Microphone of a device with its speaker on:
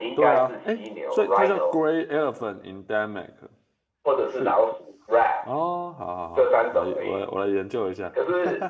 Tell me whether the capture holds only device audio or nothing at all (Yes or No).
No